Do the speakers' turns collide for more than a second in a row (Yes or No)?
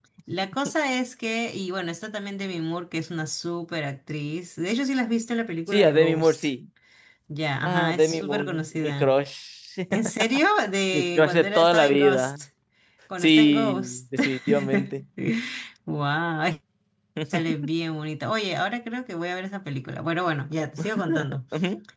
Yes